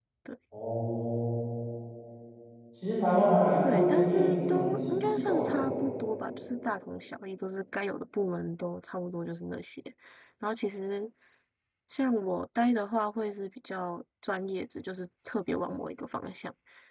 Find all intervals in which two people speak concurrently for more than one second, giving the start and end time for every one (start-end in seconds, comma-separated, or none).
3.6-5.5